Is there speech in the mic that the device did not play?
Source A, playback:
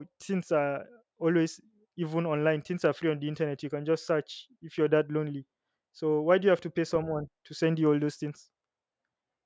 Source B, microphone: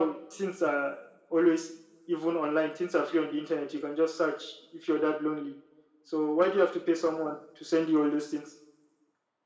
No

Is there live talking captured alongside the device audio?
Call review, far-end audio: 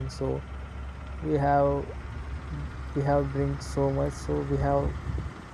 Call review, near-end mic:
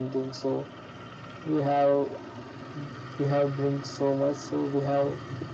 No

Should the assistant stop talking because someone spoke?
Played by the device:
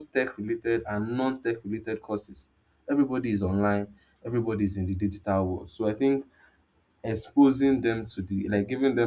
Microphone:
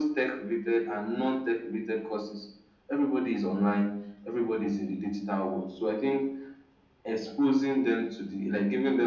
No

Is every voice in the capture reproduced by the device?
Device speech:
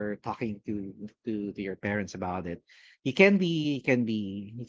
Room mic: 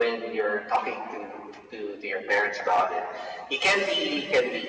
Yes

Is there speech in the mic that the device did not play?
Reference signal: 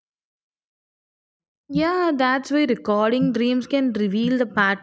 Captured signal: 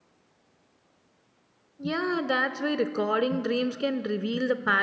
No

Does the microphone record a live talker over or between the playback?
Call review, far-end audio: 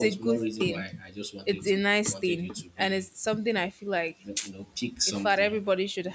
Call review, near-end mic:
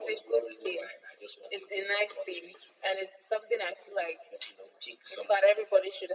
No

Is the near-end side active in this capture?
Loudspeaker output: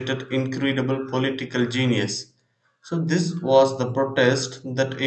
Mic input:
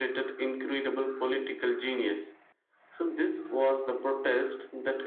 No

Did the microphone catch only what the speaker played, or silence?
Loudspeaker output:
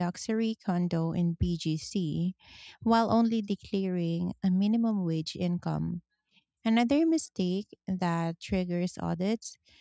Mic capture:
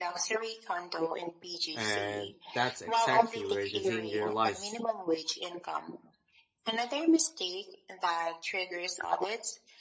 No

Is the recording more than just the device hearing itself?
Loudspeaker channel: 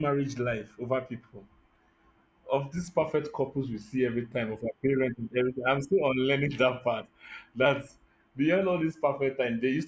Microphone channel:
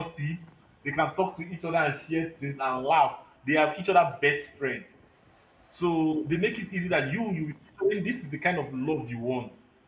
Yes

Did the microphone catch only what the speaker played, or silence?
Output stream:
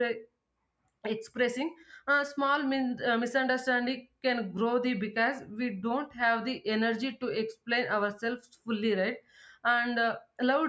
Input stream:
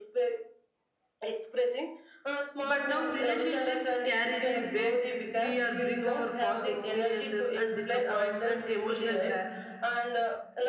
No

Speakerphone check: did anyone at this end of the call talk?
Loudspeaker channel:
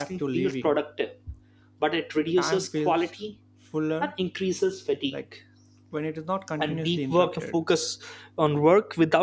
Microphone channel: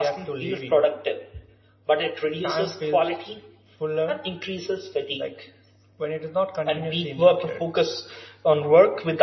No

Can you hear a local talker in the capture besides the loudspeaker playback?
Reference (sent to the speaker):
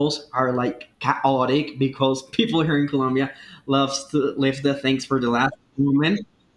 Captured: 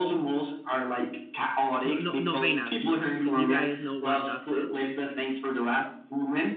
Yes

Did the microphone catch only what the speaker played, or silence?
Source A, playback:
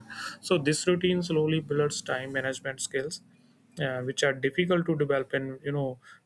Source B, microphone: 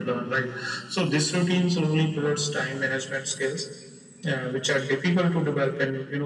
Yes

